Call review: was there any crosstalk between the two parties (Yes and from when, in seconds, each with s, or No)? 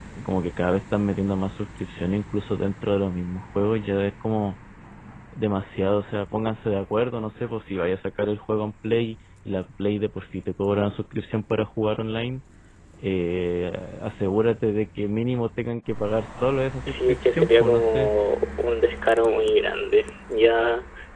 Yes, from 16.9 s